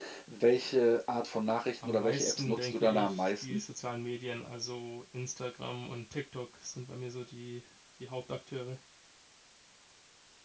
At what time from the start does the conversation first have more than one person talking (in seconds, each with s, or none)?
1.8 s